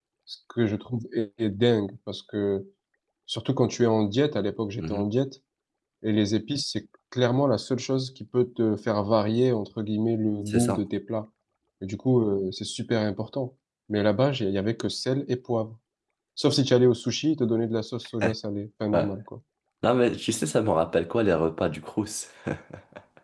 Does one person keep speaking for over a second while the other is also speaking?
No

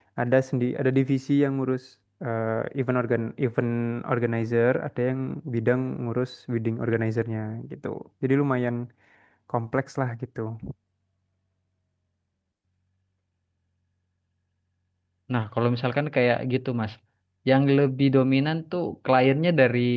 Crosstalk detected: No

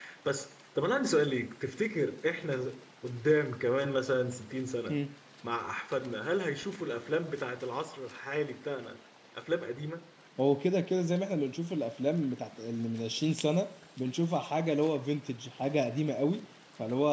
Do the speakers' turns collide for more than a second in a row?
No

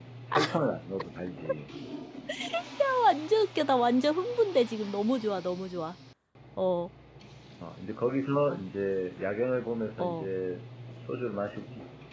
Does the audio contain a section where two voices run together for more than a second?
No

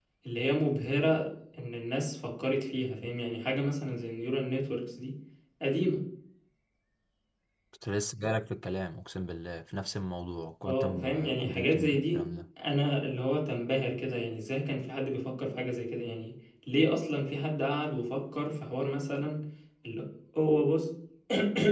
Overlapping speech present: Yes, from 10.6 s

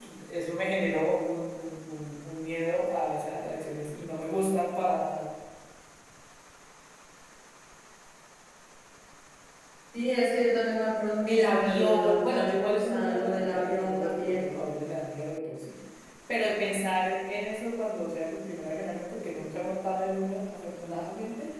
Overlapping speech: Yes, from 11.3 s

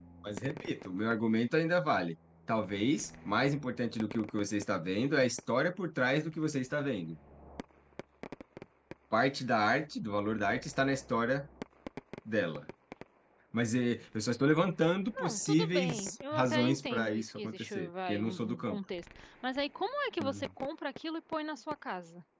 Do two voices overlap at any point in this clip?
Yes, from 15.2 s

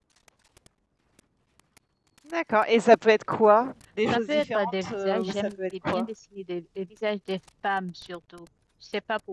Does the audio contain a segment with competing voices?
Yes, from 4.1 s

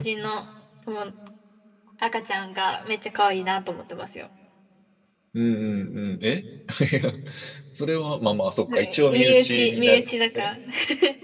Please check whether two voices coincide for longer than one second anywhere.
Yes, from 8.7 s

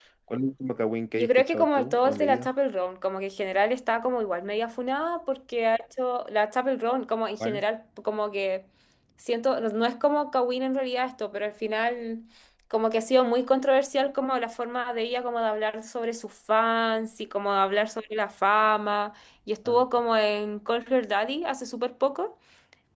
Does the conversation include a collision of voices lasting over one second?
Yes, from 1.2 s

